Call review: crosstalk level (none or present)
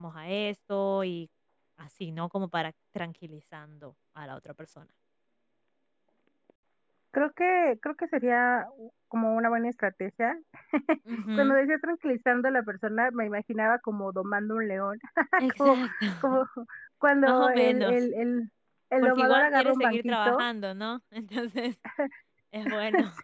present